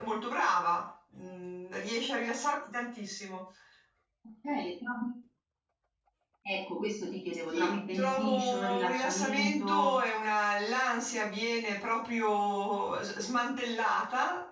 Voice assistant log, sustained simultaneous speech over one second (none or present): present